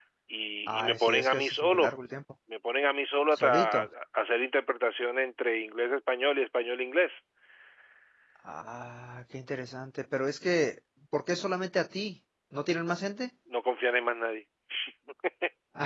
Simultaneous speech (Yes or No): Yes